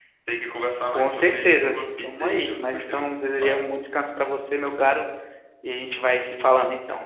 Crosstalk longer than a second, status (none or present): present